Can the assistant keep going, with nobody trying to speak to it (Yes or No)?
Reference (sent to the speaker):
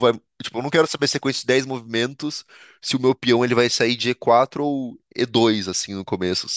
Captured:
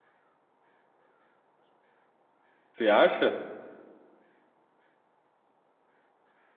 No